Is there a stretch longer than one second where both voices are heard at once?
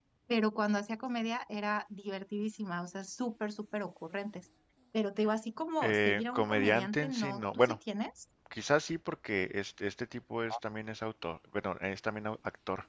Yes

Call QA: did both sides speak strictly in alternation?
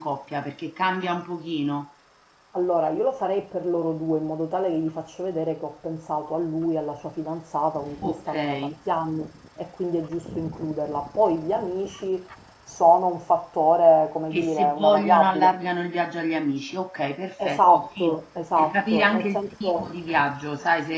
No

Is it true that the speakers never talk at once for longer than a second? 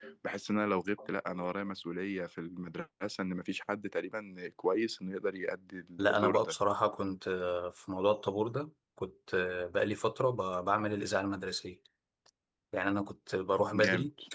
Yes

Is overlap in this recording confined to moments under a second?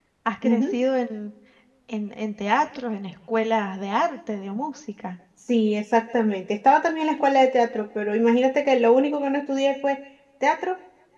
Yes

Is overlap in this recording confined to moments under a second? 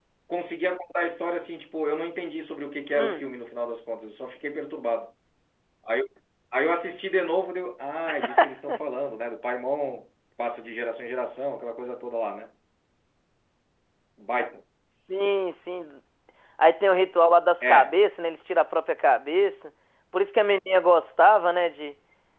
Yes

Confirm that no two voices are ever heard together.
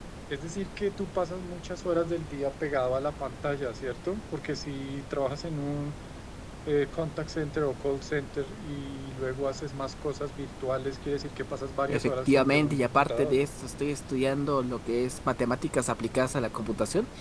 No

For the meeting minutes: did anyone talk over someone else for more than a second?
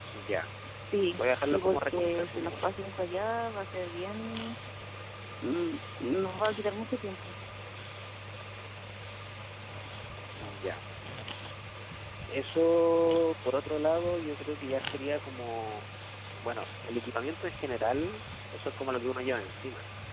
Yes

